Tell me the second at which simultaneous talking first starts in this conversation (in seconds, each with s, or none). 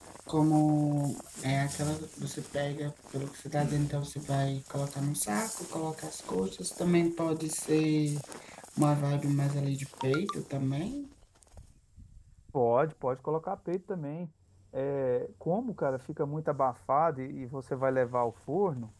none